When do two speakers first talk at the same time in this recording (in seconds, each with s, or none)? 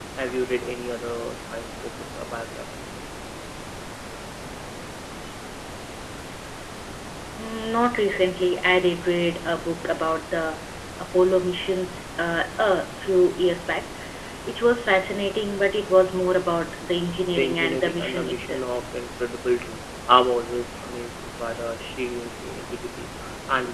17.4 s